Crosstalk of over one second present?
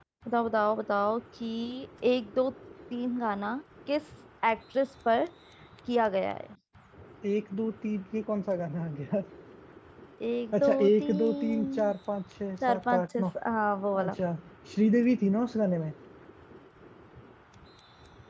Yes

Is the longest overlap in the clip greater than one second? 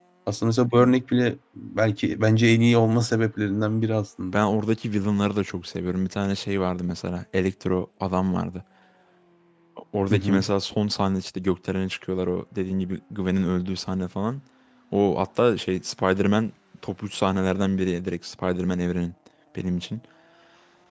No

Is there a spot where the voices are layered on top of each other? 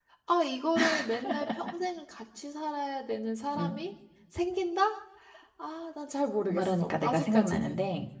Yes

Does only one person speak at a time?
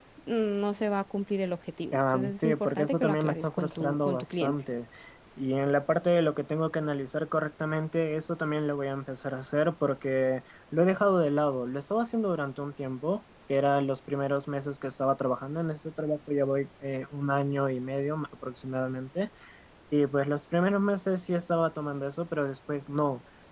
No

